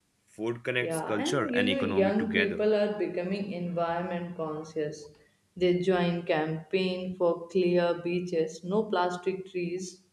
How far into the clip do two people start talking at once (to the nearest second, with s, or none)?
1 s